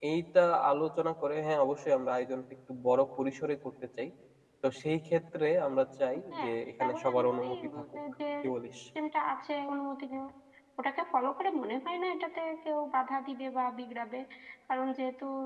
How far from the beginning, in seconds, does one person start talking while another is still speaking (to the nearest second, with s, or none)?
6 s